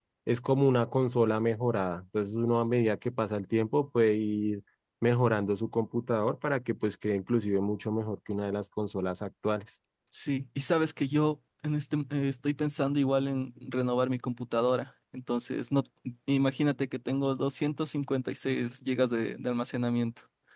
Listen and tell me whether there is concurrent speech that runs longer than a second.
No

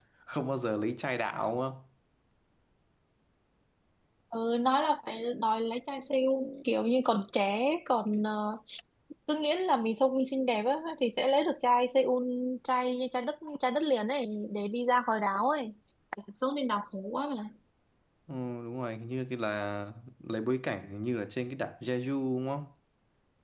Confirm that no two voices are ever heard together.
Yes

